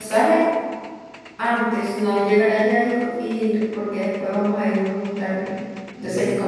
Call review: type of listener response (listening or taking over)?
listening